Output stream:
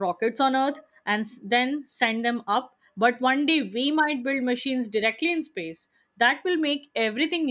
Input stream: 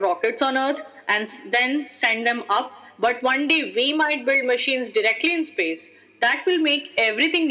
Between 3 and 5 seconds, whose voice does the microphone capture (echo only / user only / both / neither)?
echo only